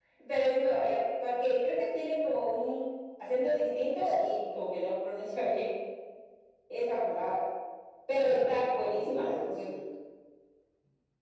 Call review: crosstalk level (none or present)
present